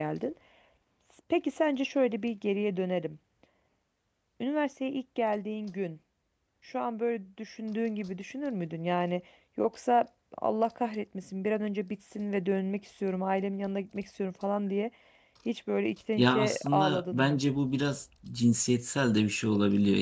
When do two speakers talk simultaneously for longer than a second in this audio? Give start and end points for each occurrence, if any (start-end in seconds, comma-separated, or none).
16.2-17.4